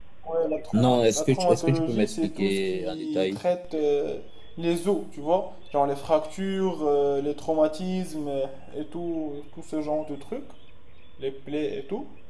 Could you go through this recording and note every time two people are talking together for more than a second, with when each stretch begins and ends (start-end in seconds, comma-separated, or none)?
0.7-3.4